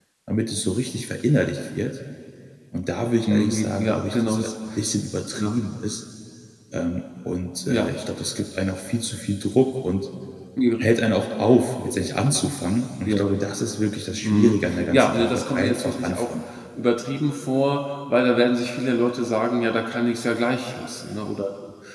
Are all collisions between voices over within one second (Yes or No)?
No